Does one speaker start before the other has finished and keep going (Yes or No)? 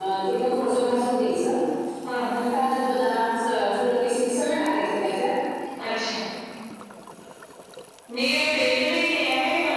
No